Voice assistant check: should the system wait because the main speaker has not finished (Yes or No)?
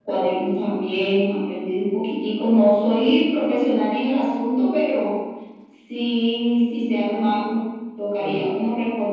Yes